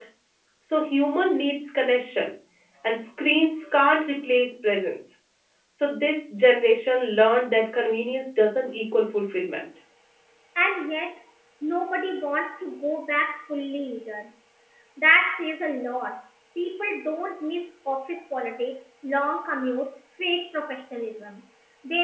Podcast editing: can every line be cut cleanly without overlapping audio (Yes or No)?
Yes